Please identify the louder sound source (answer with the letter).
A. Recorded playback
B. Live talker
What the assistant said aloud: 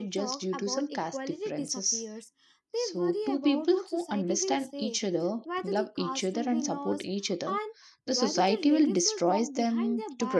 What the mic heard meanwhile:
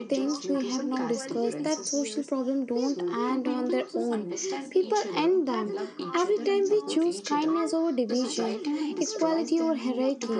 B